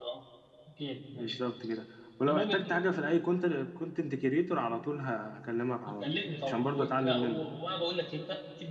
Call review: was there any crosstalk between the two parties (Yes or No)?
Yes